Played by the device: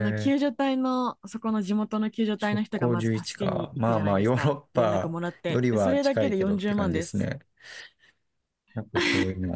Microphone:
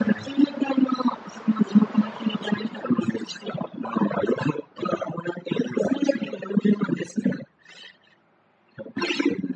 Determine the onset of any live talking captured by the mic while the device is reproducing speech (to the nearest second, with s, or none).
none